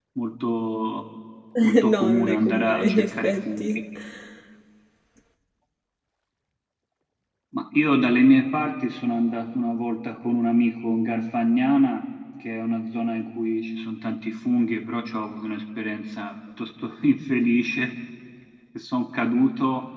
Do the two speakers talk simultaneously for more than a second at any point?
Yes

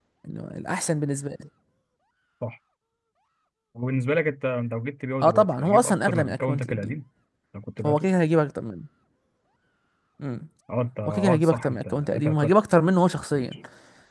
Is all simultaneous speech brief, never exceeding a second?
No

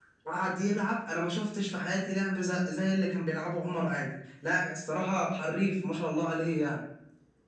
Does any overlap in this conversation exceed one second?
No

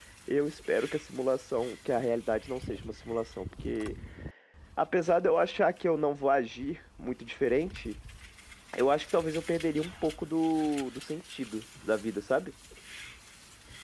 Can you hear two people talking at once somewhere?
No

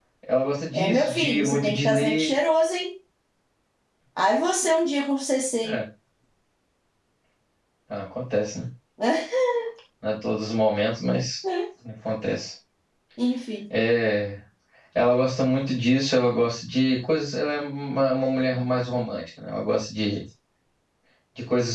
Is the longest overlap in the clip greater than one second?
Yes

